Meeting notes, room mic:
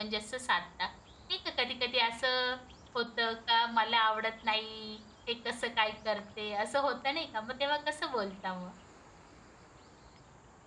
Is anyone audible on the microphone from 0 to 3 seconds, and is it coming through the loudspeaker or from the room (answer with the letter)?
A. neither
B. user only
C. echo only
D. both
B